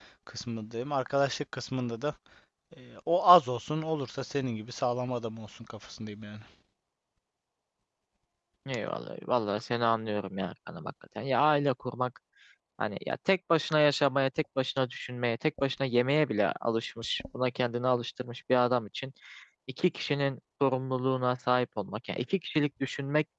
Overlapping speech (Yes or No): No